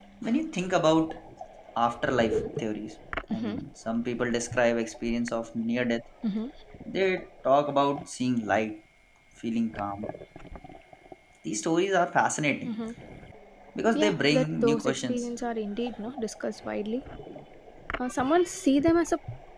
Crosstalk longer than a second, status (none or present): present